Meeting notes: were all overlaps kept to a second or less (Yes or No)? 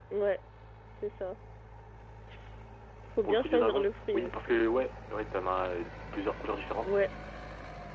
No